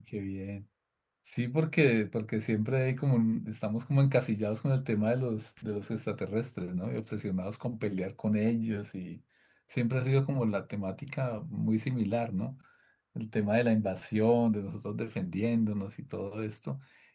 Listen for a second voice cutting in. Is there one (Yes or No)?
No